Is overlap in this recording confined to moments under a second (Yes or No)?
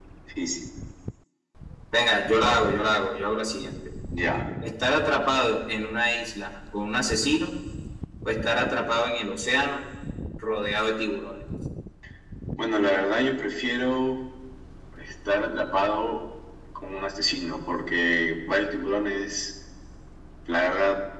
Yes